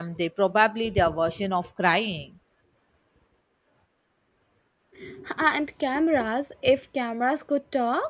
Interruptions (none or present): none